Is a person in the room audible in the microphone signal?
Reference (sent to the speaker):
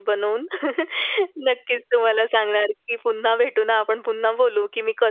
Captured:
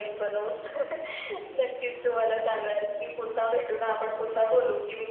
No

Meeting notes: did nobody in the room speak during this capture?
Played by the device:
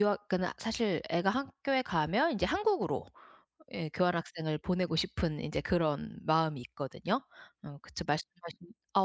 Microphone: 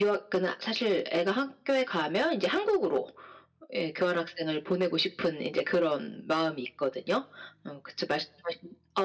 Yes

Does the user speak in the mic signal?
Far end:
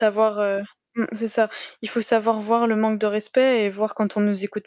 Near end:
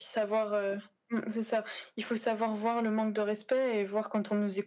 No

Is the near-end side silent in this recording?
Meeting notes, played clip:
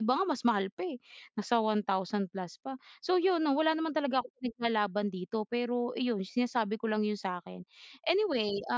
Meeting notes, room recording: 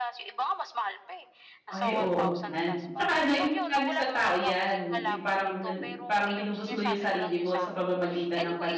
No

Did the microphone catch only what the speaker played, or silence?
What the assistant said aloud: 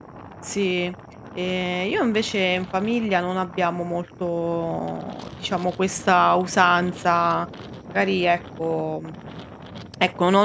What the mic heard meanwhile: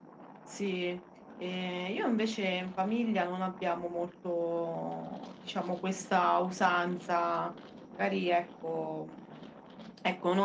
Yes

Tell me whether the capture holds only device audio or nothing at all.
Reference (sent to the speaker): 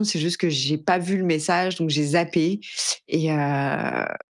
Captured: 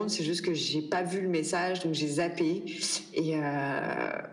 Yes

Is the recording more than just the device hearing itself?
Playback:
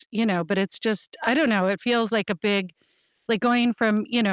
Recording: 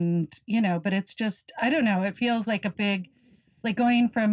No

